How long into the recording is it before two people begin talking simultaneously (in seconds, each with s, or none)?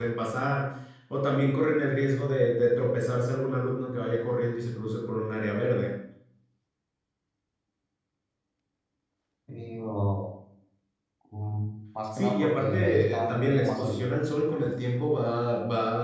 12.2 s